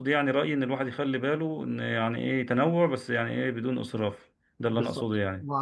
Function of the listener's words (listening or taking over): taking over